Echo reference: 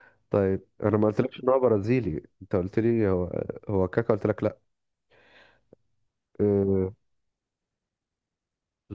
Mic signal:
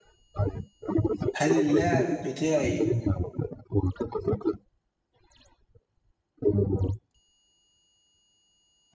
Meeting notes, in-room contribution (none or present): present